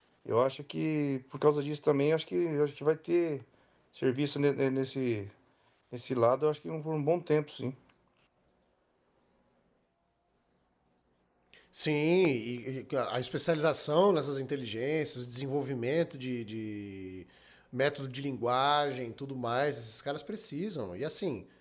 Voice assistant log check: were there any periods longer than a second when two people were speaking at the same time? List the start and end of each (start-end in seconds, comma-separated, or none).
none